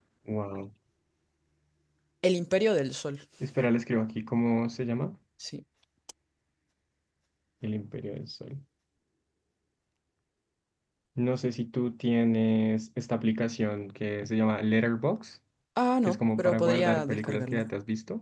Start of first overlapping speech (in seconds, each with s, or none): 16.0 s